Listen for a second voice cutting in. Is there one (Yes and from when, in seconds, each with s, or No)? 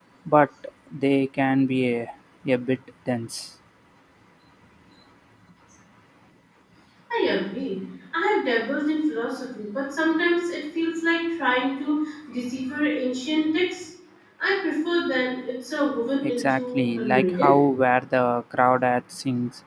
Yes, from 16.2 s